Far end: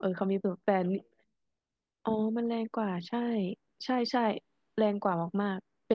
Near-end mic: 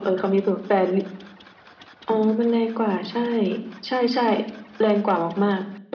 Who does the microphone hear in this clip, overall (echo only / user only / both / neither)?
echo only